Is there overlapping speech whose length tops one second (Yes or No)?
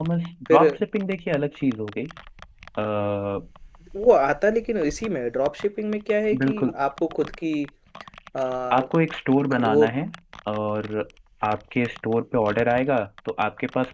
No